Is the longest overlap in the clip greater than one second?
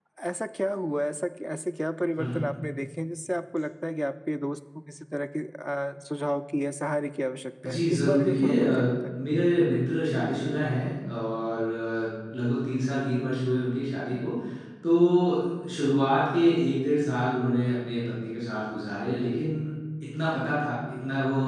Yes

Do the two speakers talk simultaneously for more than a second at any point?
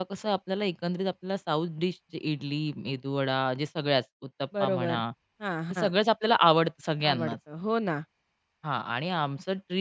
No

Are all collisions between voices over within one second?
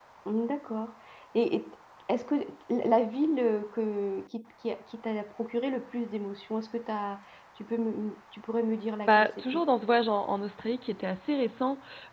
Yes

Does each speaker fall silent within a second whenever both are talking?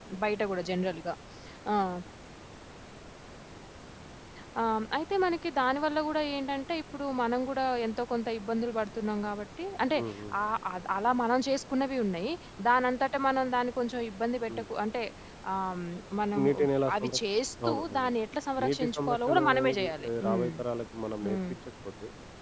No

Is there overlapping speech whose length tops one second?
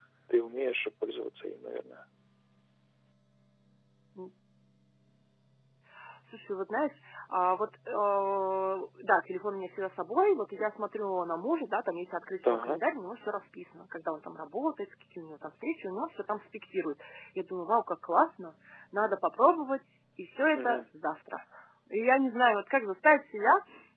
No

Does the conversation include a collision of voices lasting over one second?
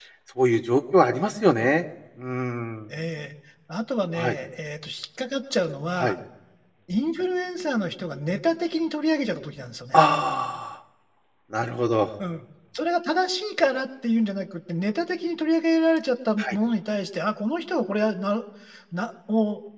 No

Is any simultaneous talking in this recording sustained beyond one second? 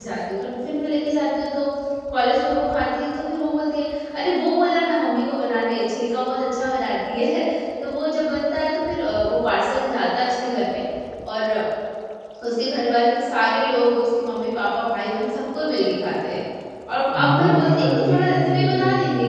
Yes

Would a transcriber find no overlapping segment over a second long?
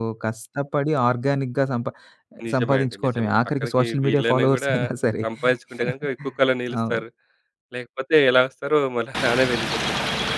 No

